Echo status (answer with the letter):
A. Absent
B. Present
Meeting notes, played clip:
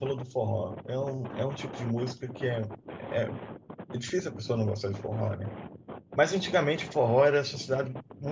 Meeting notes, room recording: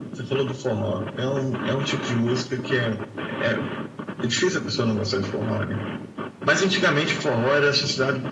B